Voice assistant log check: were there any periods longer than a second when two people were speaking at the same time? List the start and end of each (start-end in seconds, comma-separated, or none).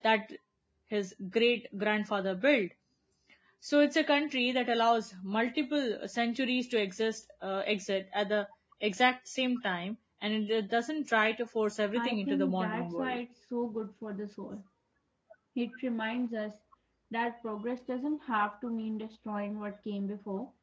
11.9-13.2